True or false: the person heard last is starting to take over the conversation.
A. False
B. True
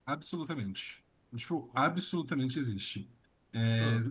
A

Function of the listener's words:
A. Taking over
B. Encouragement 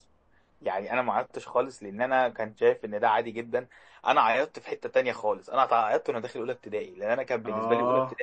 B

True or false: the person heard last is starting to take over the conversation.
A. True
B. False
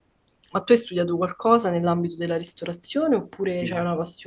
A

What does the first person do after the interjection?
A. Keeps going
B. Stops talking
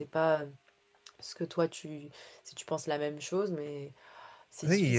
B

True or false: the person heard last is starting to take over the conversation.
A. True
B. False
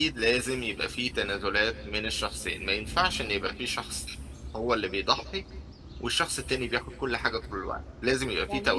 A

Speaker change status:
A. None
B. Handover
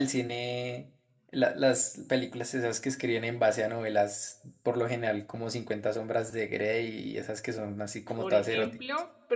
B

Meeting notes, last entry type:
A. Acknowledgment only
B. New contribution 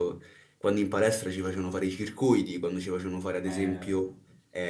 A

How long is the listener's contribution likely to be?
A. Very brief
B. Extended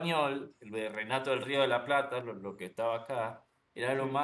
A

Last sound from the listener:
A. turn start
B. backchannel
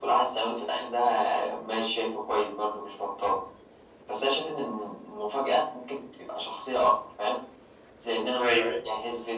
B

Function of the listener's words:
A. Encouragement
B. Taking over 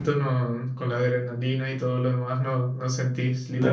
B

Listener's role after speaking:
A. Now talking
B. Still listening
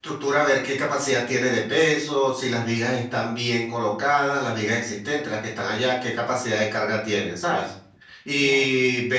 B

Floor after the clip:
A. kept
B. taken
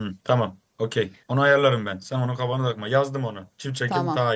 B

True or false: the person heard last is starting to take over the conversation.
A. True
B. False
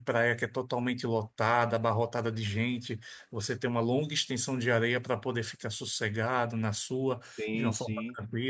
B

